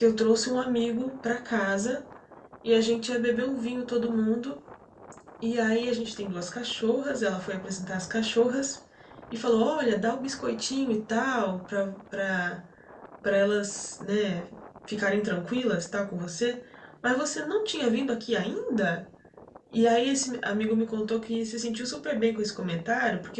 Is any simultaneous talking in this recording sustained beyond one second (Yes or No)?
No